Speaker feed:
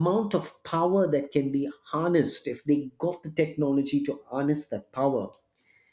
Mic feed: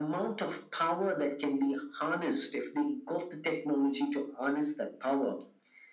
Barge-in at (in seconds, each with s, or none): none